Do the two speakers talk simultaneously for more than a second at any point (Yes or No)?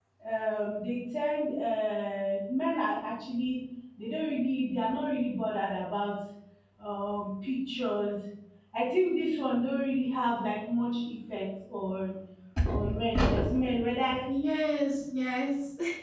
No